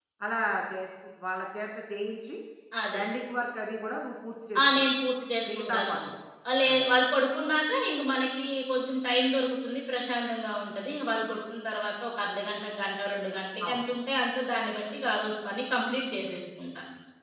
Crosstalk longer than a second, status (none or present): none